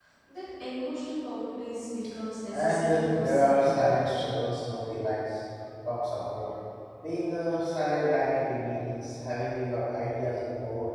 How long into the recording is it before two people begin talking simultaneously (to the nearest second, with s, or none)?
3 s